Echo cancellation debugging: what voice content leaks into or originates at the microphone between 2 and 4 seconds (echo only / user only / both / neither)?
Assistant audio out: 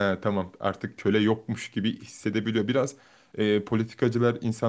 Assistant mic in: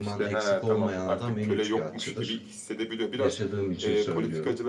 both